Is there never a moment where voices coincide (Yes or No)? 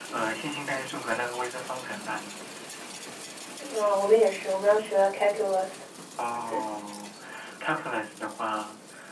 Yes